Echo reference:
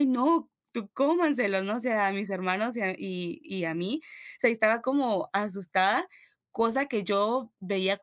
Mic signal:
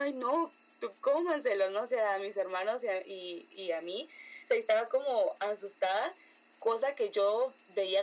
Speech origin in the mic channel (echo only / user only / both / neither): echo only